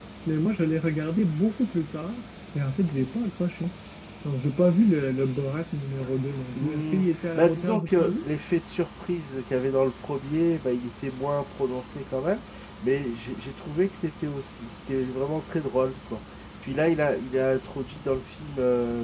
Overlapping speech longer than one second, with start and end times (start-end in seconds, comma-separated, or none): 6.5-8.2